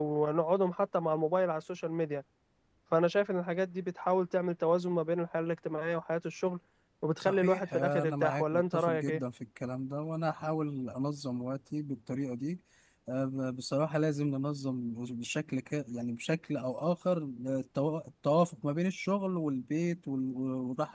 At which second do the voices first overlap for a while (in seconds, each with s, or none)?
7.2 s